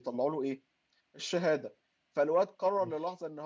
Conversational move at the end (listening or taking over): listening